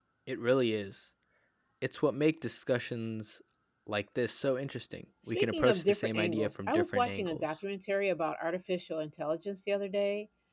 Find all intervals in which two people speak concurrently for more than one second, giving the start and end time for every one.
5.3-7.6

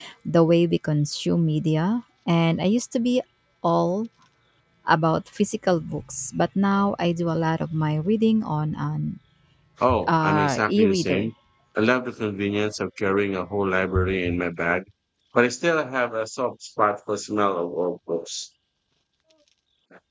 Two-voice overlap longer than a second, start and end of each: 10.1-11.3

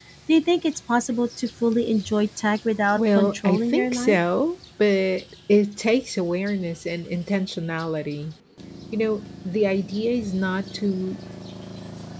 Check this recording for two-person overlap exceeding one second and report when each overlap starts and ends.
3.0-4.2

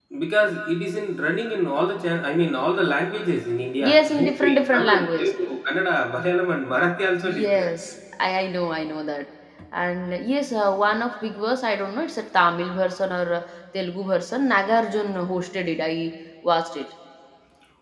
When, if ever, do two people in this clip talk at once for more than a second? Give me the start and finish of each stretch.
3.8-5.3

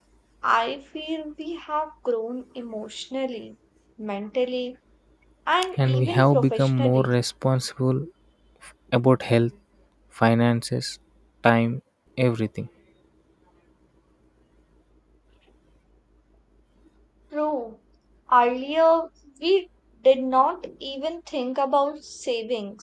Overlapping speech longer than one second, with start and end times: 5.8-7.1

